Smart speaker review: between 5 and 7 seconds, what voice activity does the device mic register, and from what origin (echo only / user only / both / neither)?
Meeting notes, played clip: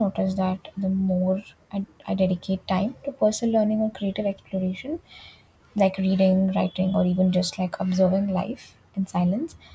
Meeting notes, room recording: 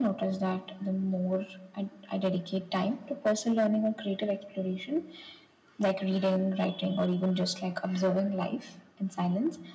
echo only